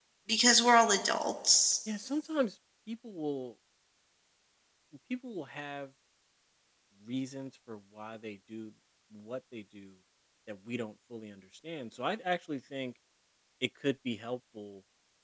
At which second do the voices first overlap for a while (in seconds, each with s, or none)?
none